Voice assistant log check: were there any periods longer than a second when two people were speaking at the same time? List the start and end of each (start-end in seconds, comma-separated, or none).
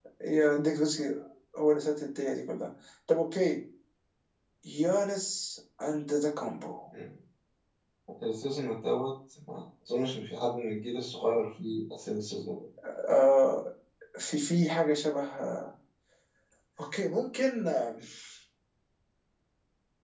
none